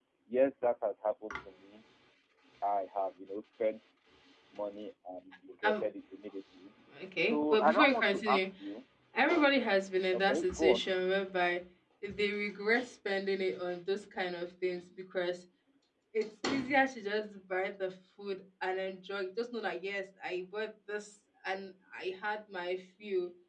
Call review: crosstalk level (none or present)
present